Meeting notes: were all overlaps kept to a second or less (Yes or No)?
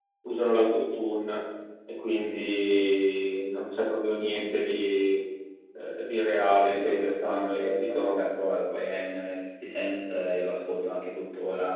No